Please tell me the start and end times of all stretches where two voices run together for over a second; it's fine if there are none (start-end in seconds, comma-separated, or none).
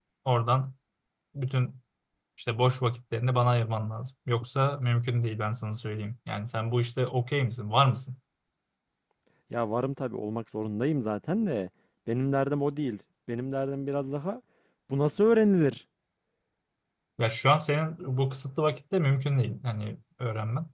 none